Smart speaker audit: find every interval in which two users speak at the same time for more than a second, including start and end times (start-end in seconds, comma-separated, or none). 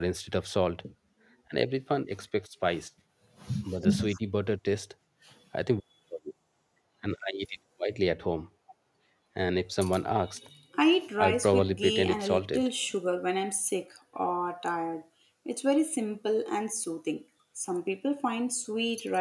11.2-12.7